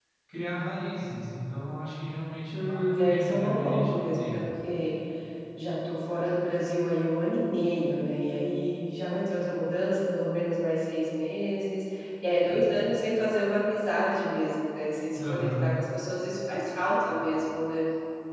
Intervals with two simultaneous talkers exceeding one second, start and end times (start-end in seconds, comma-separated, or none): 2.5-4.3